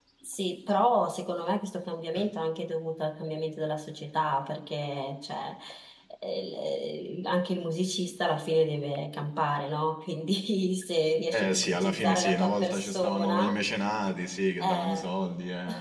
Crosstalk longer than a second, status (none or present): present